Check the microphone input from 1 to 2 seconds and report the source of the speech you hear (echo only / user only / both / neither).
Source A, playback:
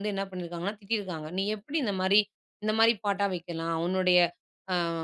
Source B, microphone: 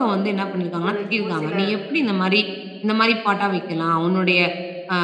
both